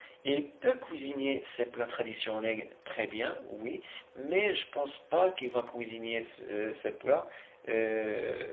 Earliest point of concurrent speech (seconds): none

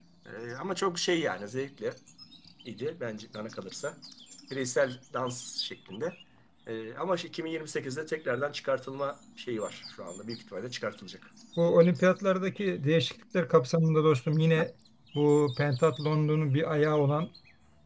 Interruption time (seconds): none

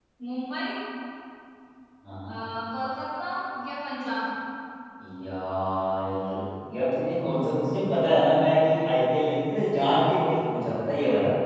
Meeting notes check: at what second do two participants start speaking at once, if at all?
none

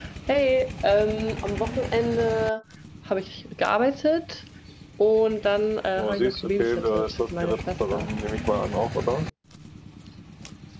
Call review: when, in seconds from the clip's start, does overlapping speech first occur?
6.0 s

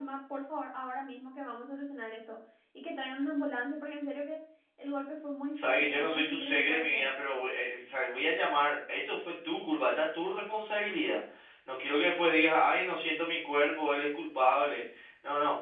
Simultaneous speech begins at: 5.5 s

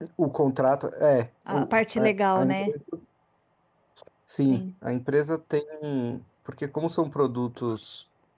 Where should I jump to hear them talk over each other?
1.5 s

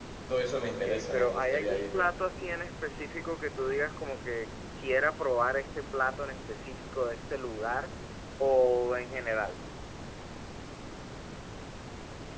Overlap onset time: 0.6 s

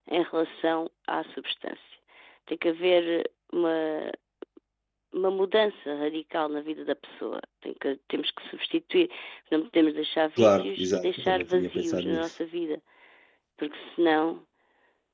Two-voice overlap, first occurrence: 10.4 s

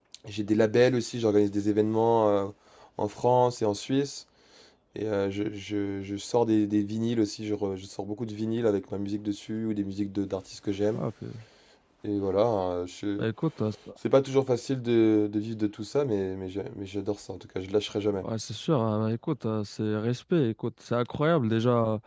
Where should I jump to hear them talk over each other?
none

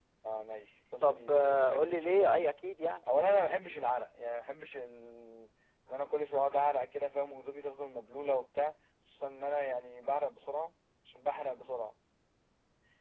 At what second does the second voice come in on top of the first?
1.0 s

